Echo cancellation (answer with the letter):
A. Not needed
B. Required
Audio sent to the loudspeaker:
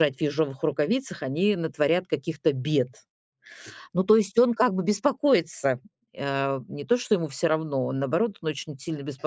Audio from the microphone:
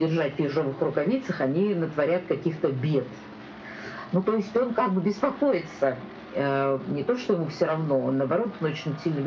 B